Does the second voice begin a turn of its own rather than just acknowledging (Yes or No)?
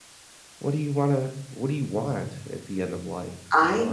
No